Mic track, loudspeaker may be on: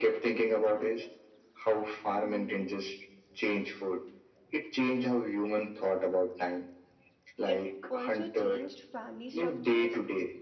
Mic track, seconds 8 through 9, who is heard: both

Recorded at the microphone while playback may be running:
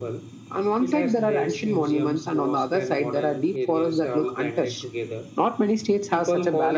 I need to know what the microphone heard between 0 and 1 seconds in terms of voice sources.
echo only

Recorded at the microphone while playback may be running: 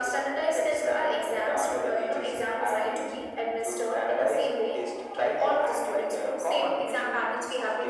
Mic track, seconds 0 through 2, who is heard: echo only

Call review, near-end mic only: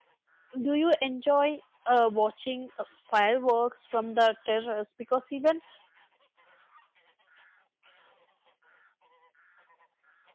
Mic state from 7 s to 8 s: neither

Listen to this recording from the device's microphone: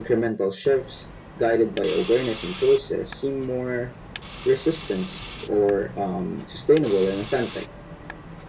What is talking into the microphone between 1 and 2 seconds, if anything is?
echo only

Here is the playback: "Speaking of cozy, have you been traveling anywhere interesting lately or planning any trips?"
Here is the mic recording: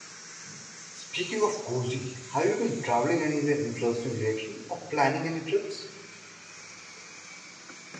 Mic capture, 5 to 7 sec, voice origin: echo only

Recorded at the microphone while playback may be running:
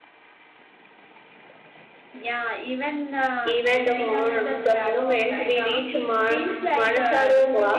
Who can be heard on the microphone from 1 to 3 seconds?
echo only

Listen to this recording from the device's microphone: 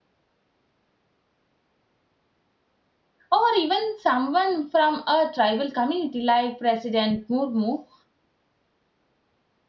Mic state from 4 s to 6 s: user only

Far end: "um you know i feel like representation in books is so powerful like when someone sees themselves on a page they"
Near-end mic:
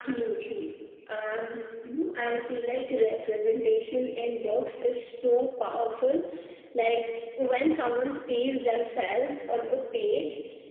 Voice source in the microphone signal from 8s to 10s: echo only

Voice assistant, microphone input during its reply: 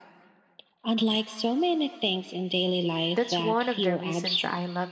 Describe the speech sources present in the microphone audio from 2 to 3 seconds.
echo only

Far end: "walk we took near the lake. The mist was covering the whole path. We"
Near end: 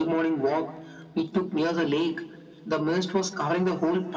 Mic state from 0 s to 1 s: echo only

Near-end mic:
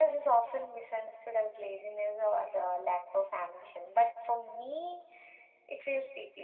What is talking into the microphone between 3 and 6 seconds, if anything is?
echo only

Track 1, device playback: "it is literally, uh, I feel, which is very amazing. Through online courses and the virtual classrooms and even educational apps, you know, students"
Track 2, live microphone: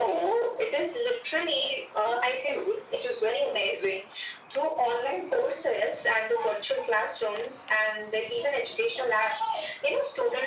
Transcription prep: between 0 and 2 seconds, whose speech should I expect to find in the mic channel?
echo only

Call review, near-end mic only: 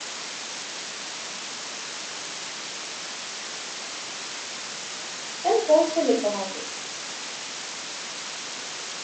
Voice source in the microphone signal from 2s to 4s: neither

